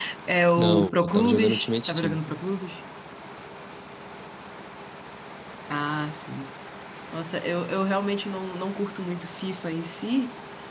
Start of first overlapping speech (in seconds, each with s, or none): 0.6 s